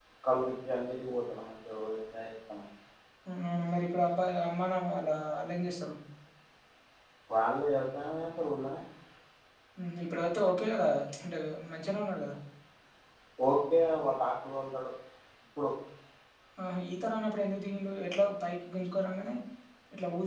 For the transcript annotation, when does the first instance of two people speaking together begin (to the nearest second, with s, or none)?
none